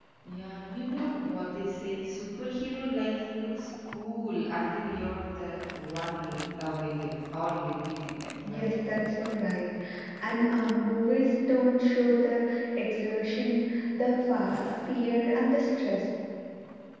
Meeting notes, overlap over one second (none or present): none